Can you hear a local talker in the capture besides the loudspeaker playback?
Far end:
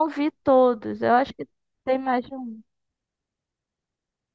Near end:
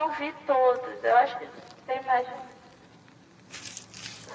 No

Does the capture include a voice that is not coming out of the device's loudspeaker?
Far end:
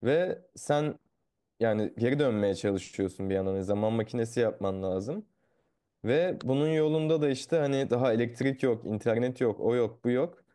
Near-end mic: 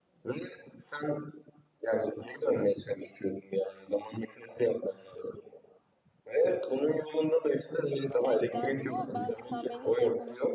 Yes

